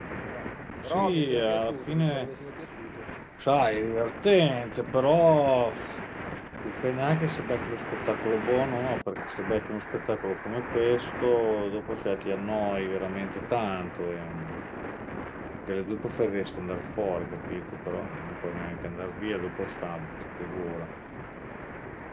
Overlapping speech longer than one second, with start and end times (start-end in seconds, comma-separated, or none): 0.8-2.3